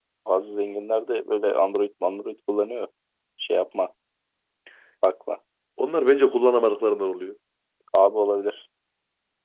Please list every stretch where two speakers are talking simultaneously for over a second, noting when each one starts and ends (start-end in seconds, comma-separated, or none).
none